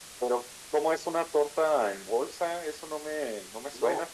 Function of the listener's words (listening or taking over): taking over